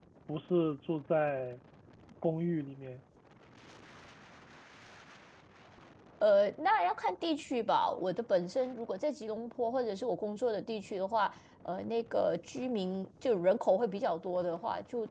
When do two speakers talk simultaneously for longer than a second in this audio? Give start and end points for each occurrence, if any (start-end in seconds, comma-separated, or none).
none